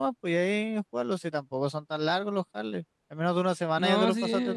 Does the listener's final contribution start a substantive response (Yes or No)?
Yes